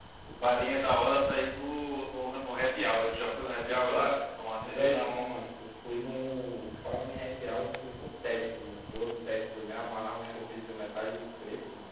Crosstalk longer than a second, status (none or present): none